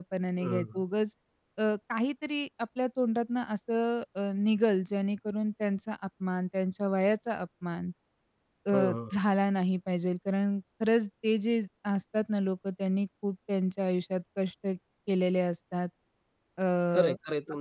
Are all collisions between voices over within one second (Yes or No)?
Yes